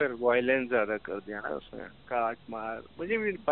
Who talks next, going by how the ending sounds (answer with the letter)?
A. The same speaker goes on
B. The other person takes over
A